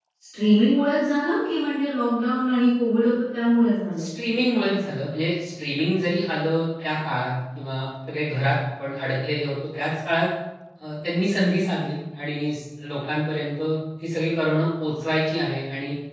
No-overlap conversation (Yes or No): Yes